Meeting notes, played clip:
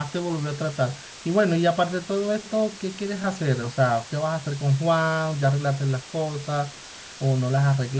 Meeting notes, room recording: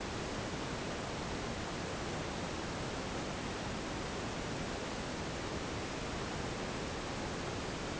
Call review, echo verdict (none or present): none